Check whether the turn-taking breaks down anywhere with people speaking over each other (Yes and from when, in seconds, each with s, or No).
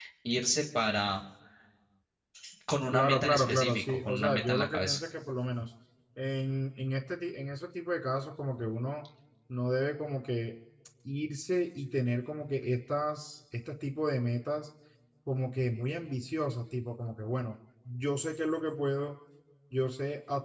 Yes, from 2.9 s